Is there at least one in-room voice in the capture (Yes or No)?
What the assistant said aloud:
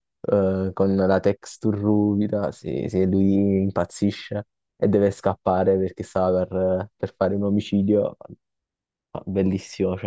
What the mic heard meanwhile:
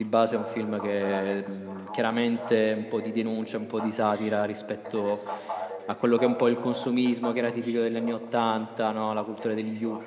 Yes